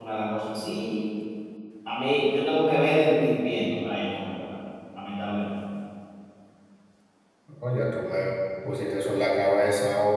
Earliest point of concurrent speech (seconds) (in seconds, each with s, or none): none